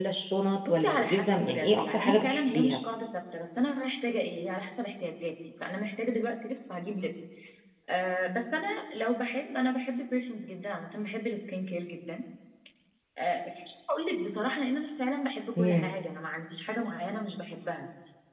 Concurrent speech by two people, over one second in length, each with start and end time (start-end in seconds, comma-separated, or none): 0.6-2.8